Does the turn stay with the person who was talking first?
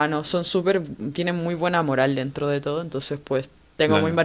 Yes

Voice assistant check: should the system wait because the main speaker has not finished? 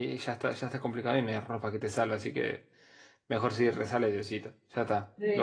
No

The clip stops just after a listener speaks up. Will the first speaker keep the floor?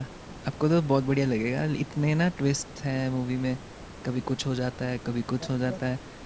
Yes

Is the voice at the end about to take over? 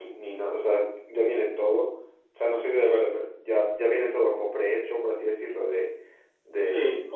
Yes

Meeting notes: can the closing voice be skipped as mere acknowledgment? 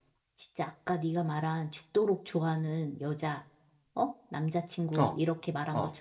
Yes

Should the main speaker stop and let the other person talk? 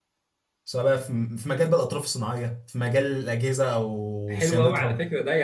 Yes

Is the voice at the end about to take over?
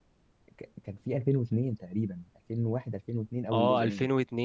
Yes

